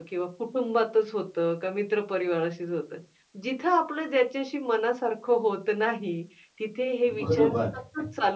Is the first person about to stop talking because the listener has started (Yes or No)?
No